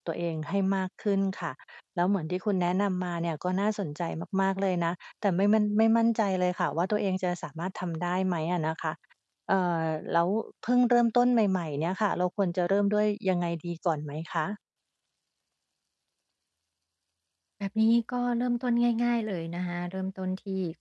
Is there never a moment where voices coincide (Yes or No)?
Yes